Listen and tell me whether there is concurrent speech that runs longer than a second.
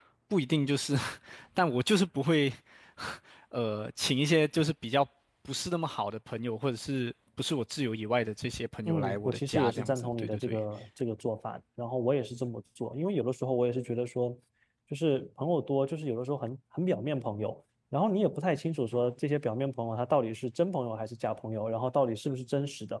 Yes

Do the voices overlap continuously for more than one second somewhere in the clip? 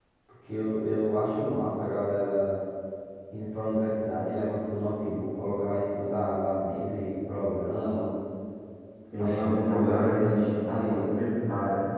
Yes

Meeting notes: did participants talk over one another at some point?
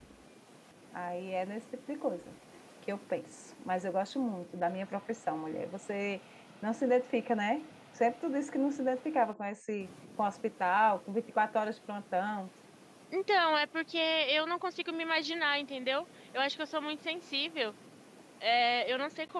No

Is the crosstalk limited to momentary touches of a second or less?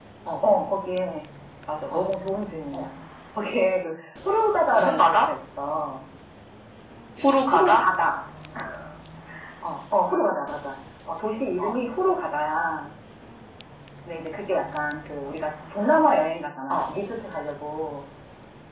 Yes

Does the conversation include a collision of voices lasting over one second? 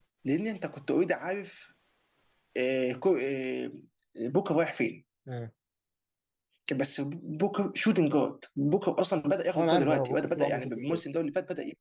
Yes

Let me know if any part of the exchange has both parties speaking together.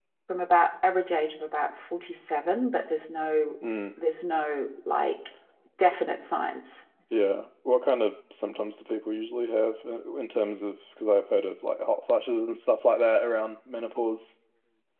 No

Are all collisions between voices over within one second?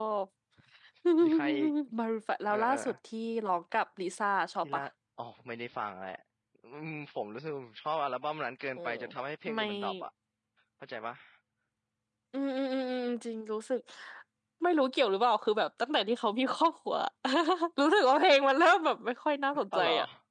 Yes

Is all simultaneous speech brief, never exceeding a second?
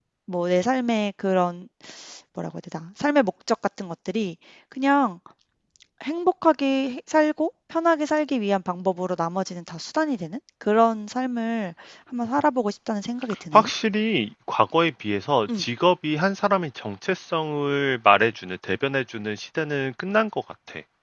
Yes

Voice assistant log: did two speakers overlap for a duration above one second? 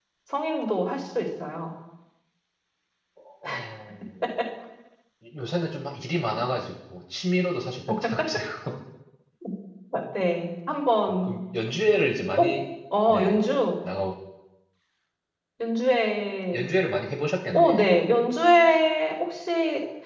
No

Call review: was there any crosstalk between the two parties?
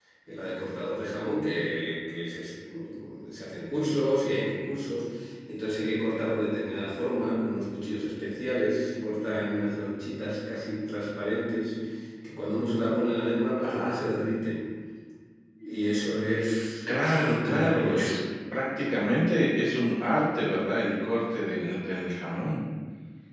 Yes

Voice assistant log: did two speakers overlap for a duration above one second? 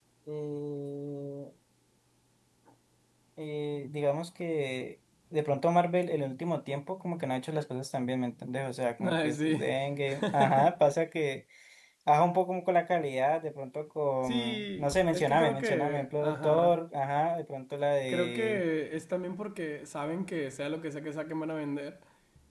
Yes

